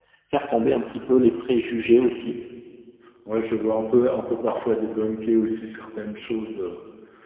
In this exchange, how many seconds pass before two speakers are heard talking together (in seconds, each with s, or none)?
none